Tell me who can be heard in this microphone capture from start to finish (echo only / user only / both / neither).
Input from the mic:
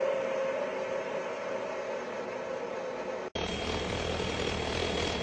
neither